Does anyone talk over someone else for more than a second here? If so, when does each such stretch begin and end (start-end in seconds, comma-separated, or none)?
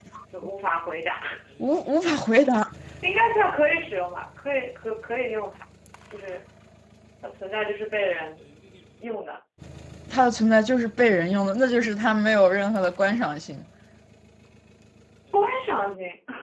none